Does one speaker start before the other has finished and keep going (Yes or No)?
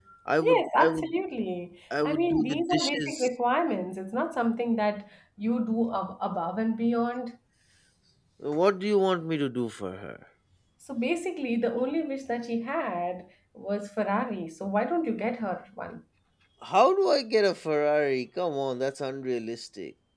Yes